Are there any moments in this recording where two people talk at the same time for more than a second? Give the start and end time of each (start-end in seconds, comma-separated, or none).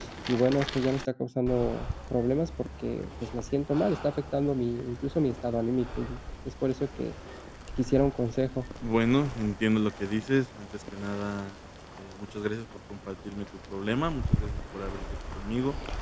none